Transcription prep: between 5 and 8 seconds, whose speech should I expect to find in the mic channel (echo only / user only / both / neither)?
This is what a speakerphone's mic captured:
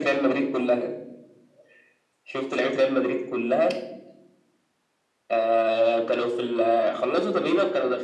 echo only